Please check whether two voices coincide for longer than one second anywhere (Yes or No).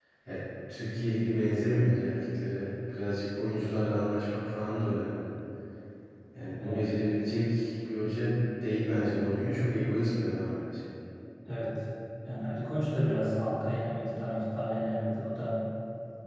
No